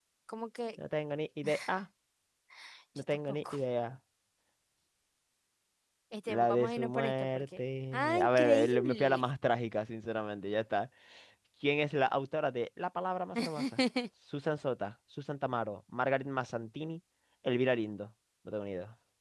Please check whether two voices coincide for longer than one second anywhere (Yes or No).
Yes